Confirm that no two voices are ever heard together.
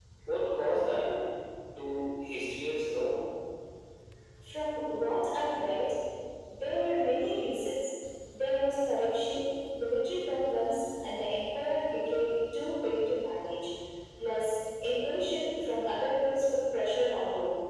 Yes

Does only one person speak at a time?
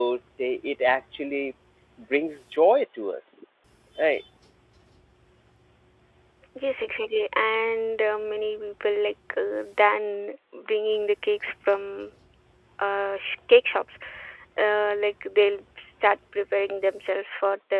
Yes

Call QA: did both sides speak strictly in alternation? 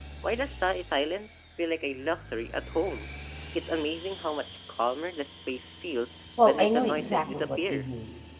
No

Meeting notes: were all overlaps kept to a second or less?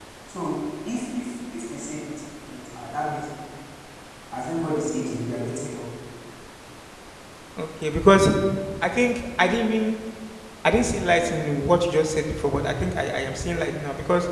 Yes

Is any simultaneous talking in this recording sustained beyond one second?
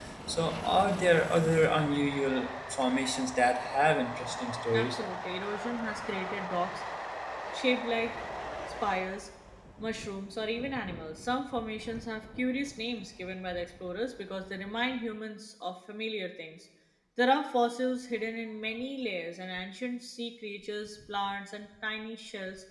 No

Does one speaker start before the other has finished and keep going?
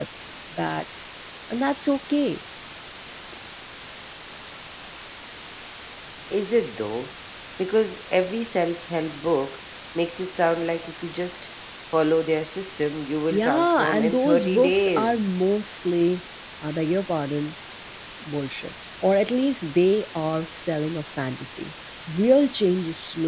Yes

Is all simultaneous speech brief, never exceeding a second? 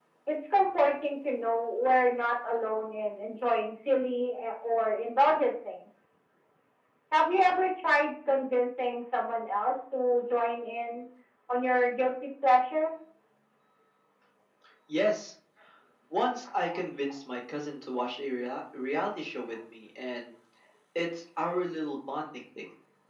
Yes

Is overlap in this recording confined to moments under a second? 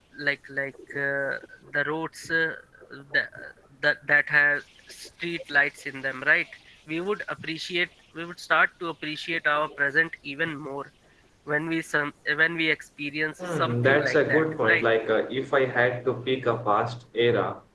No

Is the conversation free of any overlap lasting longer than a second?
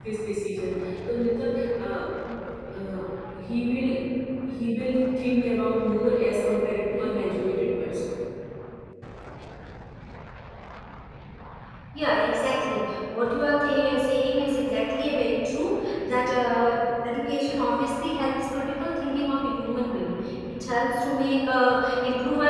Yes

